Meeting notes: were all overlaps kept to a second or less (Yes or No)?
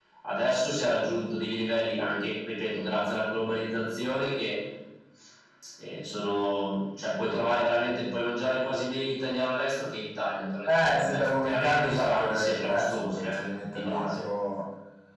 No